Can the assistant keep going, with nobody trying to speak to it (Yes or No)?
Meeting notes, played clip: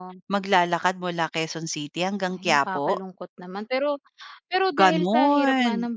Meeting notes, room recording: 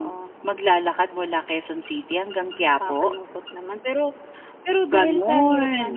Yes